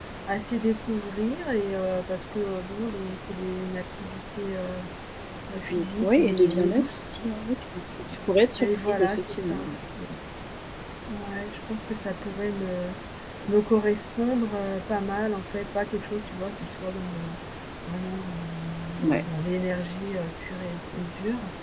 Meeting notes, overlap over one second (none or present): present